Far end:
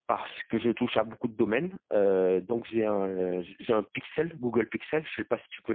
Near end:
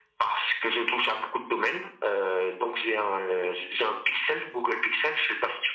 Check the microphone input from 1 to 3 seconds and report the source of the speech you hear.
echo only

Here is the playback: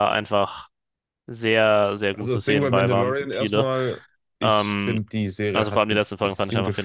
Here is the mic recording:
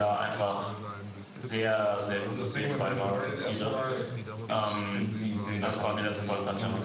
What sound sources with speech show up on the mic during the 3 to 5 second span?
both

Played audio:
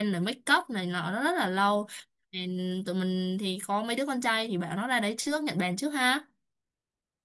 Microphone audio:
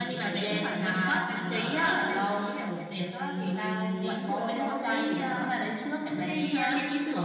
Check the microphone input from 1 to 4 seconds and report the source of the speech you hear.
both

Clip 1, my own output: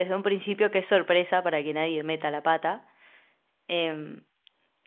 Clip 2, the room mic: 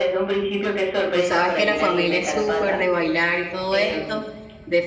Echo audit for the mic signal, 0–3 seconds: both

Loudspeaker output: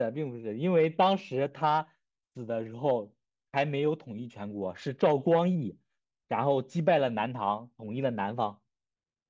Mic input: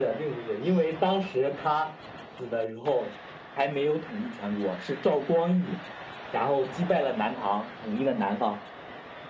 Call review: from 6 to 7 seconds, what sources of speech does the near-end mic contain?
echo only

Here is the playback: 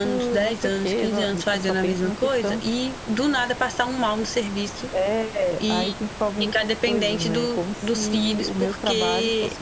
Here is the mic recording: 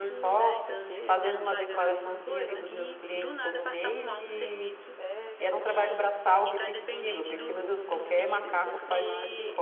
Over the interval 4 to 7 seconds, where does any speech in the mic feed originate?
both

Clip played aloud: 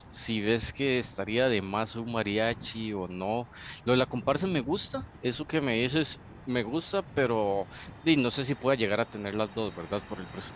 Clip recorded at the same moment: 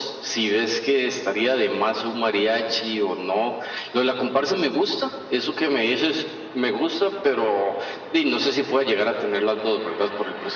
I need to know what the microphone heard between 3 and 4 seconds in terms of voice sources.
echo only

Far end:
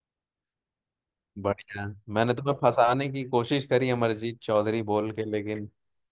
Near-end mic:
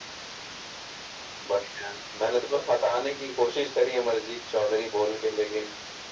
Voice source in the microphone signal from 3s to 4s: echo only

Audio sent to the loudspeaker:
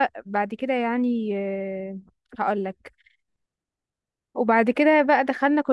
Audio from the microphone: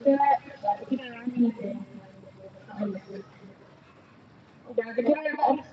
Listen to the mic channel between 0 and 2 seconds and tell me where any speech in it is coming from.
echo only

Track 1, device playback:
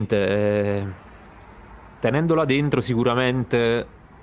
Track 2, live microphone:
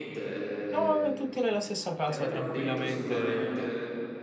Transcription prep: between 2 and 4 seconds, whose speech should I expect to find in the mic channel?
both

